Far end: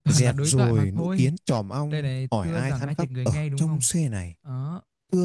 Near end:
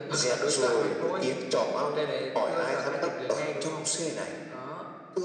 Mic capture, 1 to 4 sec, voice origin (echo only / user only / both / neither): echo only